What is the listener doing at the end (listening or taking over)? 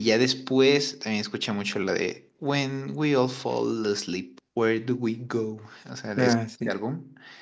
listening